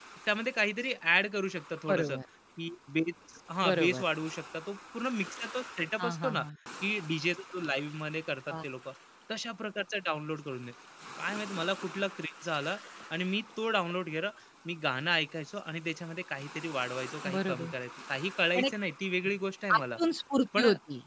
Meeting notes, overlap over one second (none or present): none